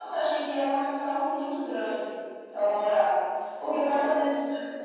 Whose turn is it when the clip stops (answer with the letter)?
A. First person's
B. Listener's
A